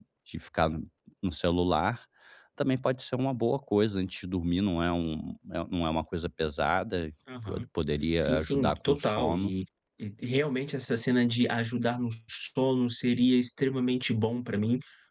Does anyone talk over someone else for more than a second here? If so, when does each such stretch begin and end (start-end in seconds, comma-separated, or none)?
8.2-9.5